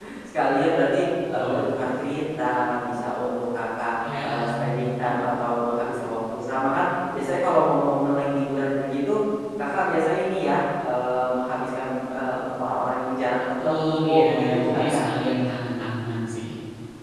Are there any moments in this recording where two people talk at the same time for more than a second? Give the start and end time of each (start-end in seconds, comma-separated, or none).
13.6-15.0